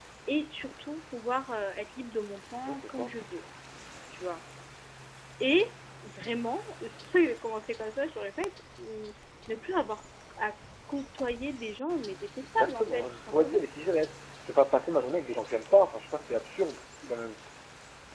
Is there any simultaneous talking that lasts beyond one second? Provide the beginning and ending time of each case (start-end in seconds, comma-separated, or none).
12.4-13.7